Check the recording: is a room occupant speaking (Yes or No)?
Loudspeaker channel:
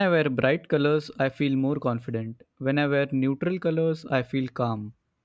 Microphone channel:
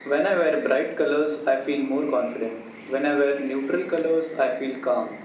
No